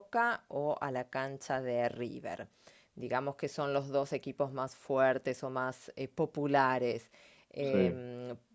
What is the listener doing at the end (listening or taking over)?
listening